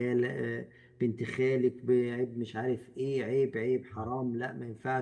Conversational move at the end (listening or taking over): listening